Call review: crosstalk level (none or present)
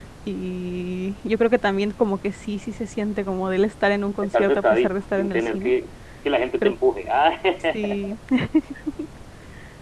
present